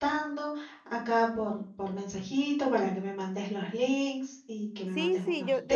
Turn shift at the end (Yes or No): Yes